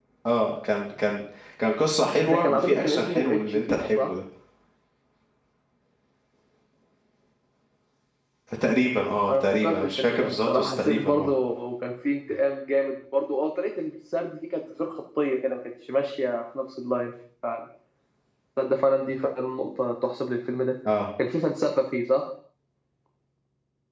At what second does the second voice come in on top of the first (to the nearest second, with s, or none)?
2 s